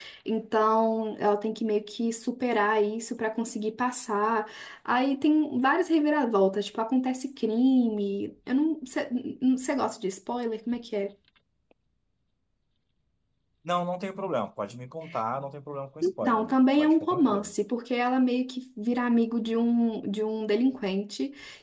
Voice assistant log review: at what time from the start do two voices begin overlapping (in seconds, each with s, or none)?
16.0 s